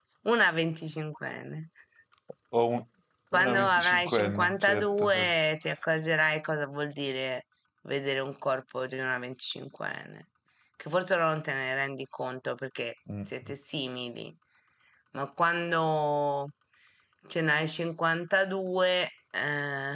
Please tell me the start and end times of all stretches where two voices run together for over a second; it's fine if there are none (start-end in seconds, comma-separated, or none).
3.4-5.3